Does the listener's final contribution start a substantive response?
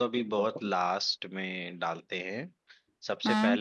No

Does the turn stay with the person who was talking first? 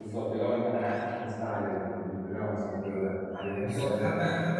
No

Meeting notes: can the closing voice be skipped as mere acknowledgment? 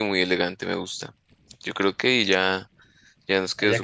No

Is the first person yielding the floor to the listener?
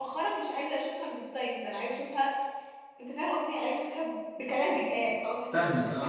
Yes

